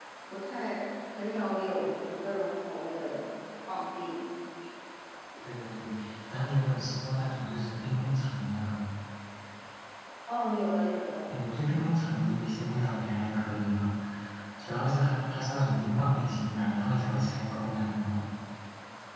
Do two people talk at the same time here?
No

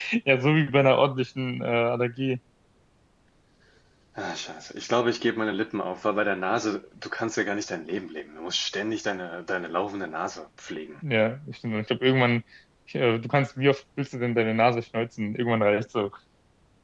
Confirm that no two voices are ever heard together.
Yes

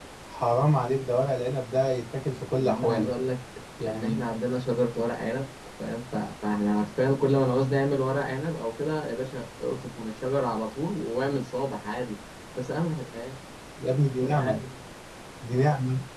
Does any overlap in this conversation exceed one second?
No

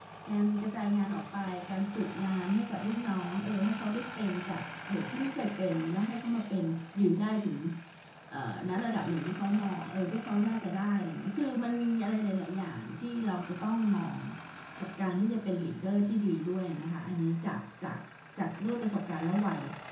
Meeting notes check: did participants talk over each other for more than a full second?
No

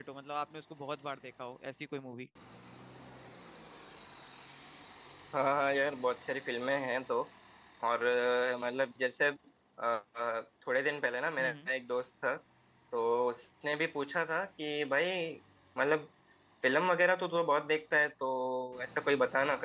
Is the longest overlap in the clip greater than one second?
No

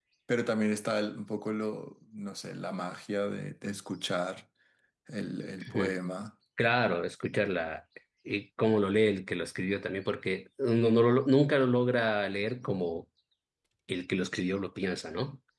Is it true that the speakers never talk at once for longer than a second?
Yes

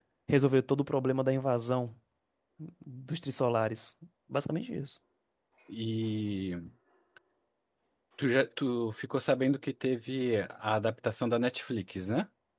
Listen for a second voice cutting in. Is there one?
No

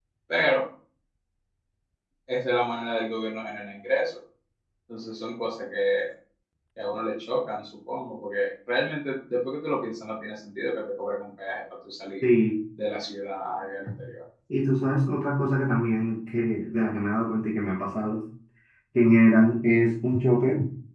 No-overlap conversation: Yes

